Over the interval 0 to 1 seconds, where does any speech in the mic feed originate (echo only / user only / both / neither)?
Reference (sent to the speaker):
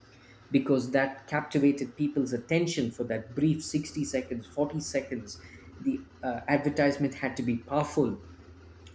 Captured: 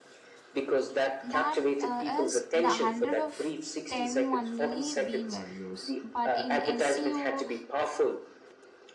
echo only